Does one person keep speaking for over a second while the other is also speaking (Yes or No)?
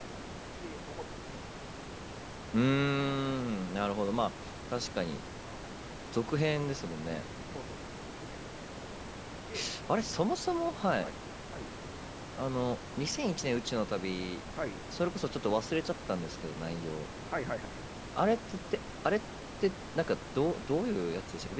No